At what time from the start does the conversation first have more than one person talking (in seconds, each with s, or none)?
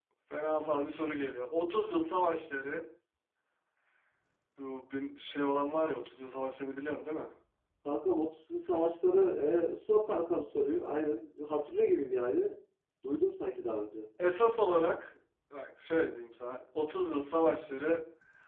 none